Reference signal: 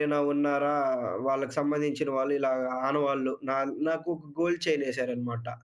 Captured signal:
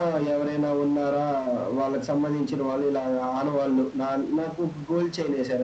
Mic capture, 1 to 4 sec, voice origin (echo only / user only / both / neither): echo only